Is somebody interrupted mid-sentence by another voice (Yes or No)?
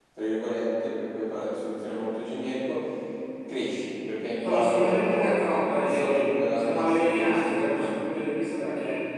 Yes